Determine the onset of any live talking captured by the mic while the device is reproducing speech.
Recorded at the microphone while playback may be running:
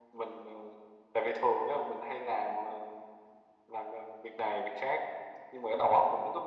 none

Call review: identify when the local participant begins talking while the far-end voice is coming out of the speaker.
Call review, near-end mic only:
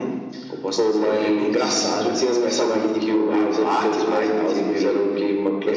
none

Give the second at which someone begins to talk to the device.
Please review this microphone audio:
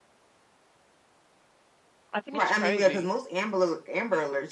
2.1 s

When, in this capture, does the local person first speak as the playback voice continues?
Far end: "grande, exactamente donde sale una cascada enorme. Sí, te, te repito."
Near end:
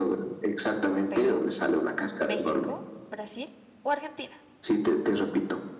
1.1 s

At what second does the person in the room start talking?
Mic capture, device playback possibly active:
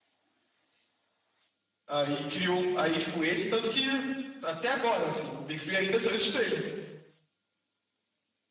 1.9 s

